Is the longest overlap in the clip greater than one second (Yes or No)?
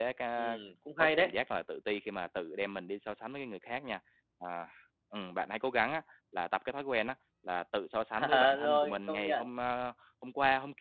Yes